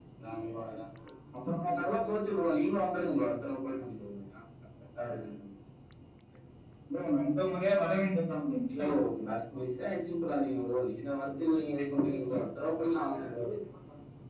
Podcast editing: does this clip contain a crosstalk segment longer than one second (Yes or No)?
No